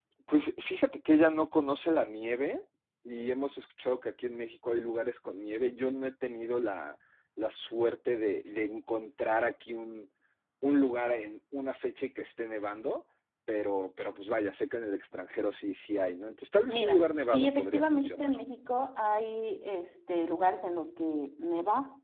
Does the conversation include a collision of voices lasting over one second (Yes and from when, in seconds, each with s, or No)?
Yes, from 16.7 s